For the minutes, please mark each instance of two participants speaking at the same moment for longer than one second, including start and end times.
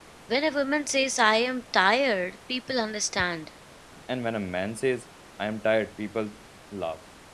none

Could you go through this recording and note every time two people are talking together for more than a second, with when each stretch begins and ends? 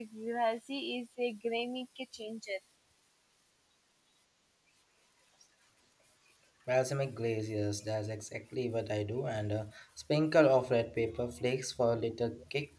none

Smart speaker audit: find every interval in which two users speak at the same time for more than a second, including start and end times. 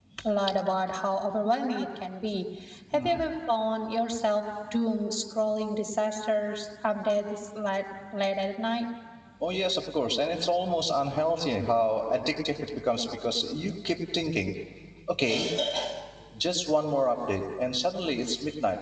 none

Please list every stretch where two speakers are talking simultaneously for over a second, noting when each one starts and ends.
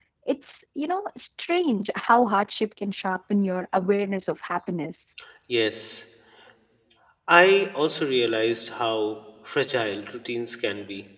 none

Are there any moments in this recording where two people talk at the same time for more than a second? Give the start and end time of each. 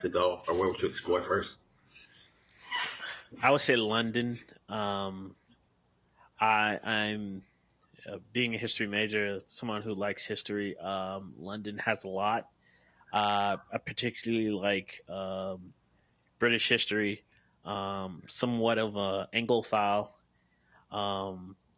none

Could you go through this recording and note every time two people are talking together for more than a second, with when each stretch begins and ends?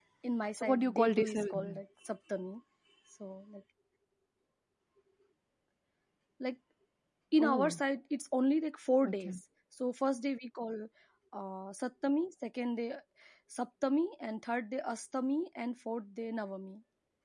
0.6-1.8

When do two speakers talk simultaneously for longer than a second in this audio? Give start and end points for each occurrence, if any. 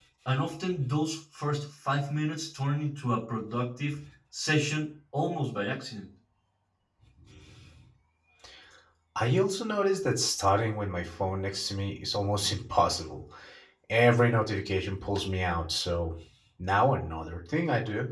none

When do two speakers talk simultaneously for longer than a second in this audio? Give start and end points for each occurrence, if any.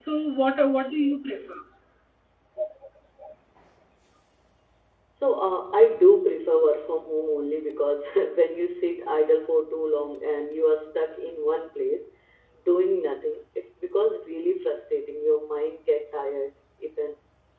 none

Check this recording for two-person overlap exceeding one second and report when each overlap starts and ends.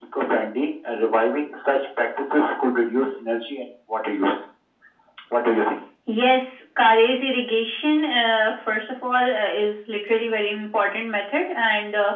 none

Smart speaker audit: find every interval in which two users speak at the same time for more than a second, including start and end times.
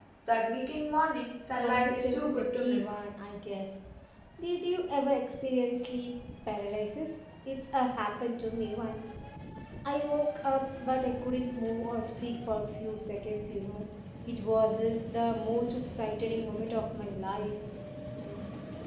1.6-3.0

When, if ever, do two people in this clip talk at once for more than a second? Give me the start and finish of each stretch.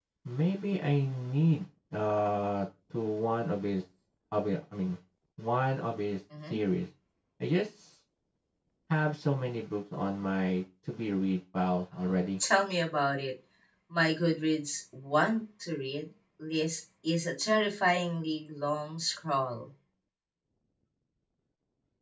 none

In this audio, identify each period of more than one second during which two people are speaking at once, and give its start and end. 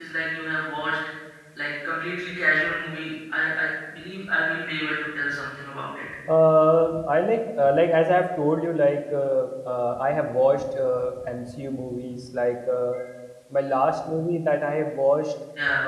none

